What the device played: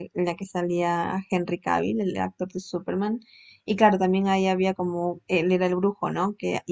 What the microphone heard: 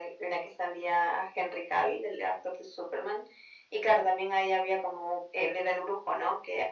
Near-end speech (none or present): none